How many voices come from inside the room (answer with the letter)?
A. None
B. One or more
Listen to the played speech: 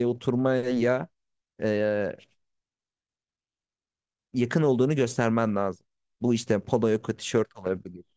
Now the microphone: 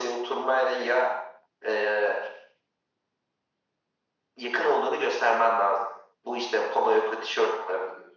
A